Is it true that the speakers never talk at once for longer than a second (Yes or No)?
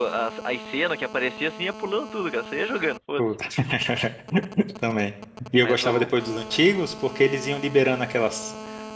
Yes